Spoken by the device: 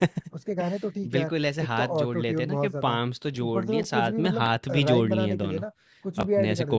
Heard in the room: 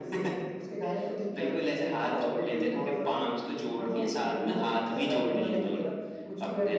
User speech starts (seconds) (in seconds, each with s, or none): none